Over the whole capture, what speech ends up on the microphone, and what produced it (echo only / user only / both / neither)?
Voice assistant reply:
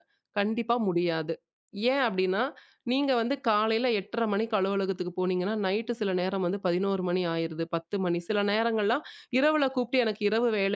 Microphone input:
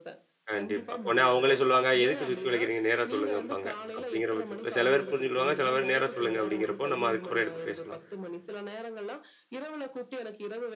both